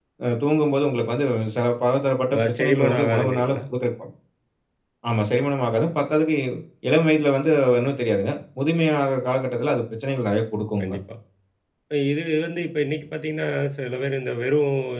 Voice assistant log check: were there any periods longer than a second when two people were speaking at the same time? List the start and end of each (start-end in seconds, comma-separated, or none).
2.3-3.6